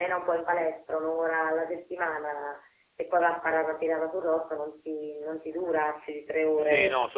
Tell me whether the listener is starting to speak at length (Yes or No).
Yes